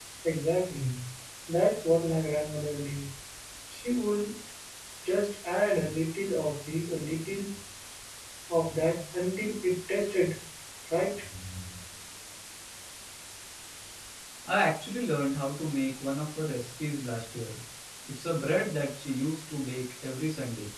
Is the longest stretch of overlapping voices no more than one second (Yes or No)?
Yes